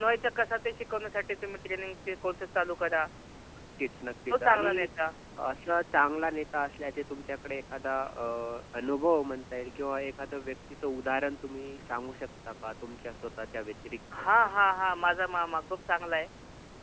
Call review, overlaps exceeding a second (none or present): none